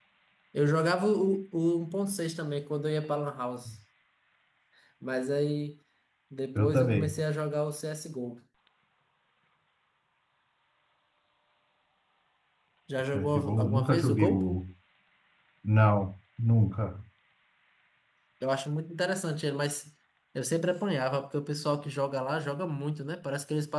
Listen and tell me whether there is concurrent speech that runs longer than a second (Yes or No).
Yes